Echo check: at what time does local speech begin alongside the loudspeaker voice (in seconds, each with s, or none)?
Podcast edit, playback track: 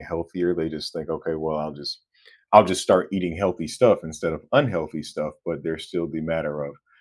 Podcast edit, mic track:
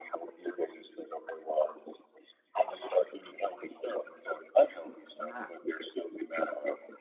5.2 s